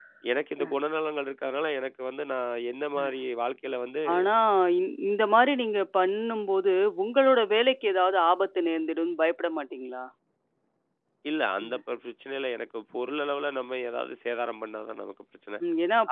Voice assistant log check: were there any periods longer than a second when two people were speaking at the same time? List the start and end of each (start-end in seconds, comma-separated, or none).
none